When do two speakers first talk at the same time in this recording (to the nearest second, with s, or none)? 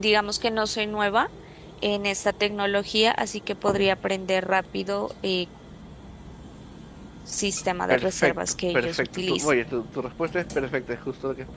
8 s